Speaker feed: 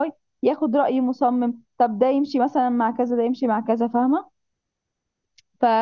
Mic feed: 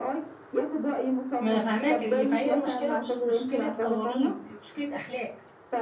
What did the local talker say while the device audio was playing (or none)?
ما فاهماك فهي المشكله مش مشكله قوانين هي مشكله اخلاق